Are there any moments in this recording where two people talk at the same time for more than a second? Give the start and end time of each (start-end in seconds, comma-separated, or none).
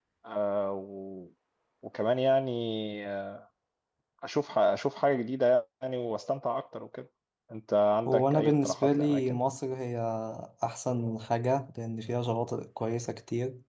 8.1-9.4